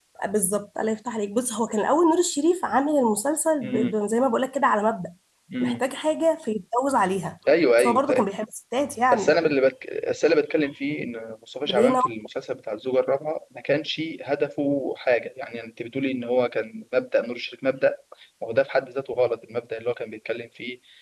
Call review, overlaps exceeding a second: none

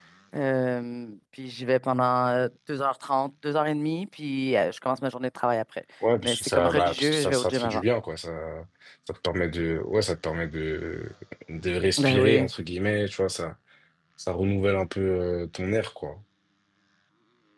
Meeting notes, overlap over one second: present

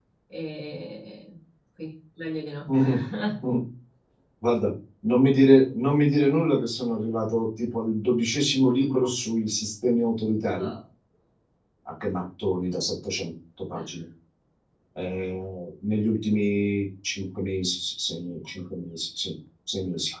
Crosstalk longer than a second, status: none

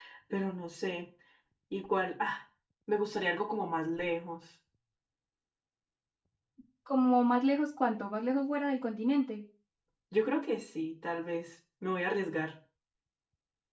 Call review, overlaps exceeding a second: none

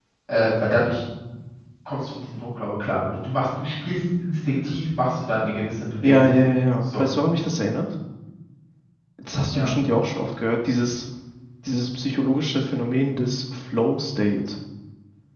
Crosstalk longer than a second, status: none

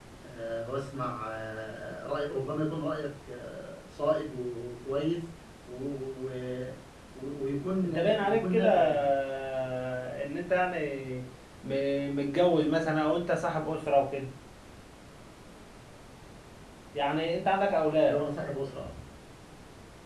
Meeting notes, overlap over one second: present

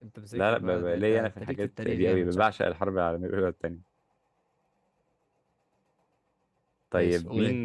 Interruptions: present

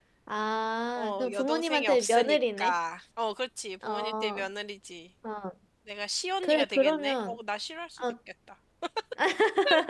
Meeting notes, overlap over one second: present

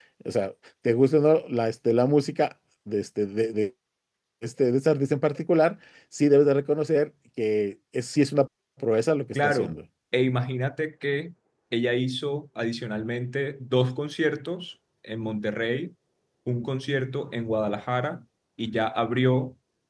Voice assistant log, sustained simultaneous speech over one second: none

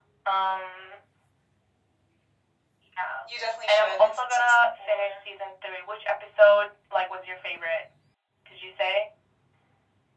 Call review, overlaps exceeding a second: present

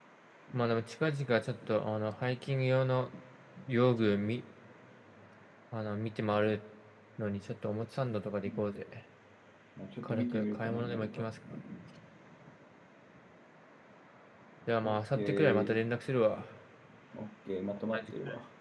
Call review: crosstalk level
present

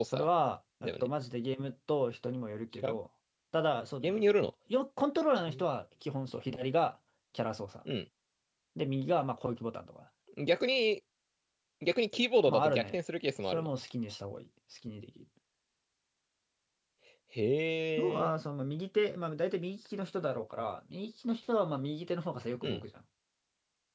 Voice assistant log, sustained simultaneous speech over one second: none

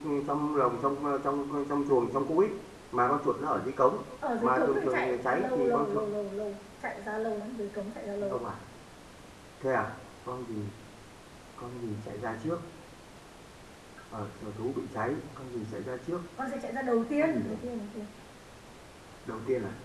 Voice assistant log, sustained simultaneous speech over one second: present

